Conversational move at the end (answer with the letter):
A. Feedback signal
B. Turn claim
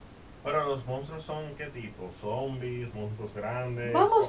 B